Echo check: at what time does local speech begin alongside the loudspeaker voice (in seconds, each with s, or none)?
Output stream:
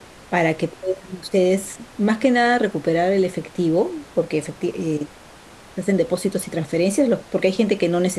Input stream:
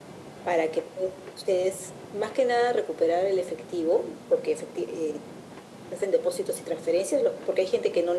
none